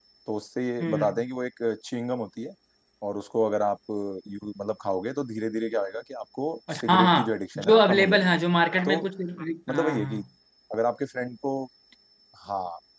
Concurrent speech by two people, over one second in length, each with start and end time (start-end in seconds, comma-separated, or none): 6.8-8.4